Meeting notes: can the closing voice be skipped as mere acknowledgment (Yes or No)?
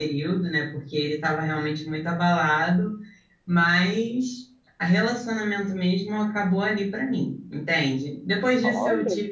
Yes